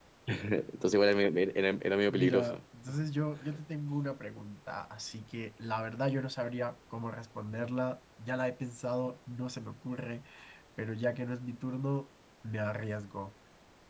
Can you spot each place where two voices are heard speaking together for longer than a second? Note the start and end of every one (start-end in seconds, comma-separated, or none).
none